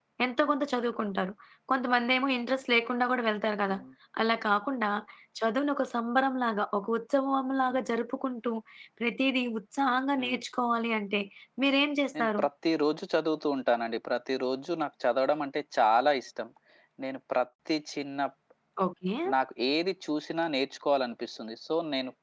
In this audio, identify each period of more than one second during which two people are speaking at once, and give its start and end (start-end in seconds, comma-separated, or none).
none